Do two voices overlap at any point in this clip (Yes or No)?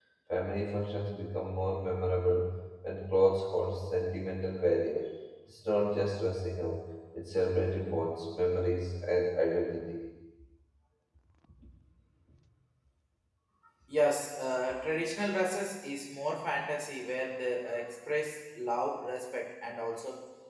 No